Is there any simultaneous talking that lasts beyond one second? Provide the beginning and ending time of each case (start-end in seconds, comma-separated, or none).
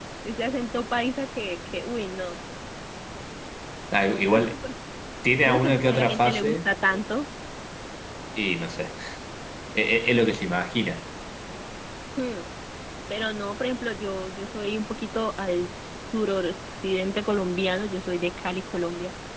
5.4-6.7